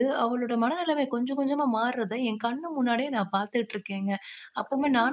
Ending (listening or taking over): listening